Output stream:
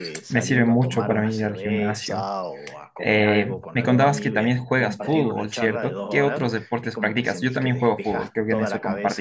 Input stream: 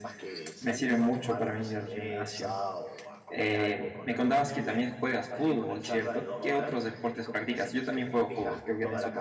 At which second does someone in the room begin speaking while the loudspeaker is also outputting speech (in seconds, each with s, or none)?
none